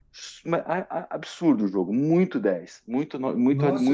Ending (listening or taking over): taking over